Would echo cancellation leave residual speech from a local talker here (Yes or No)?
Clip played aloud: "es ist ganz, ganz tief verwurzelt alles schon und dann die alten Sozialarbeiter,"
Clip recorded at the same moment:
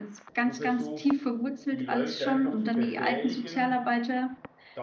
Yes